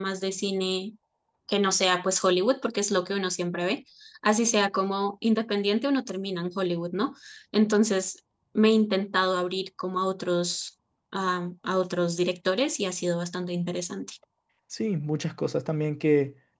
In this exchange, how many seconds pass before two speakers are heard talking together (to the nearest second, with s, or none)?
none